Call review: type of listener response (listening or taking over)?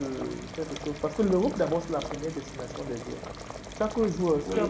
listening